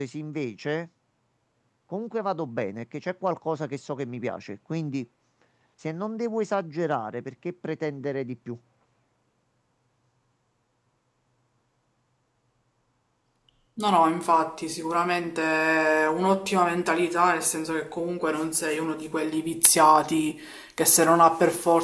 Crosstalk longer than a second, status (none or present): none